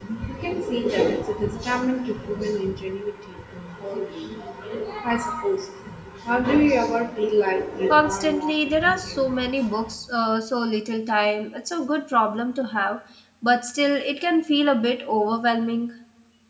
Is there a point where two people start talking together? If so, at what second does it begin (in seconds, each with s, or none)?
7.9 s